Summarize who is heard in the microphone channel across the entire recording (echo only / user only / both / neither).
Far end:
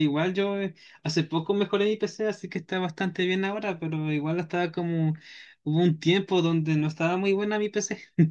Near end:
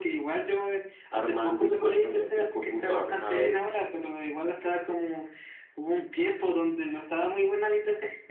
both